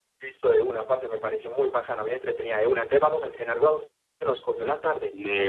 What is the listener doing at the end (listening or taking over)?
taking over